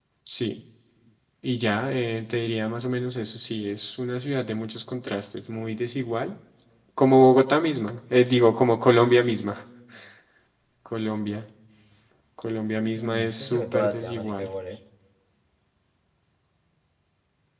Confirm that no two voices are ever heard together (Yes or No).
No